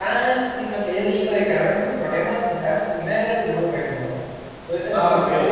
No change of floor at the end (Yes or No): Yes